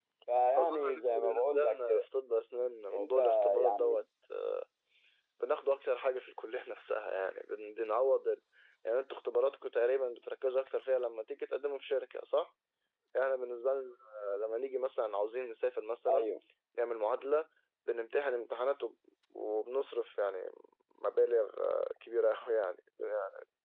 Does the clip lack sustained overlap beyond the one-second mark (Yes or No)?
No